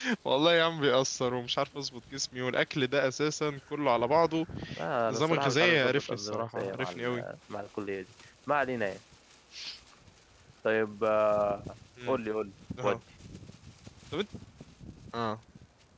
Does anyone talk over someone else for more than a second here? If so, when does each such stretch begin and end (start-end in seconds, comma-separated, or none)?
5.0-7.2